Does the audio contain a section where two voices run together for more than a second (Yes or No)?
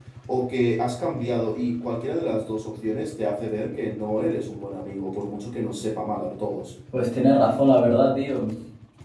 No